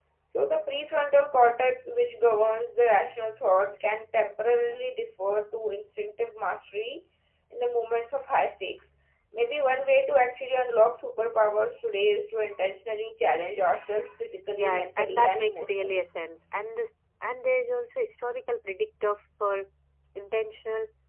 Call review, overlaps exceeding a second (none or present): present